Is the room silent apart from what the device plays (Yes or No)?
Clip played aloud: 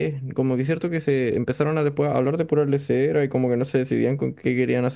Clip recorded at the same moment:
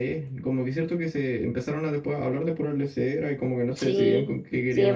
No